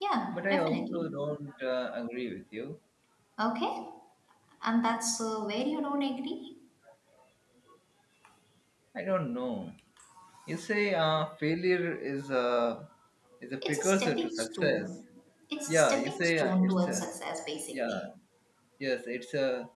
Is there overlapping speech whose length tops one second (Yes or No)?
Yes